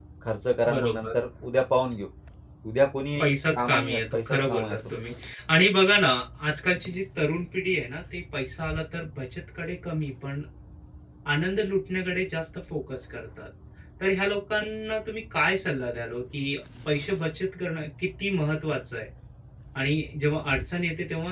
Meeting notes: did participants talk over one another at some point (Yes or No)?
Yes